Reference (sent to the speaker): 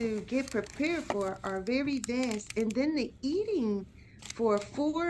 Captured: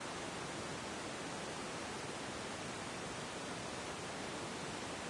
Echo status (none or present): none